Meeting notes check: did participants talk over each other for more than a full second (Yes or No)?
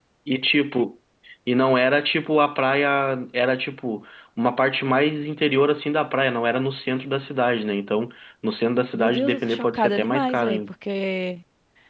Yes